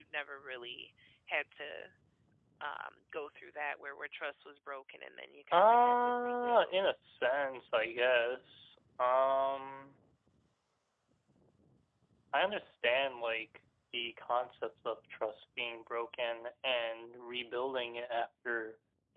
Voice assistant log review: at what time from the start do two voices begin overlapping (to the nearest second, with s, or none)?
6 s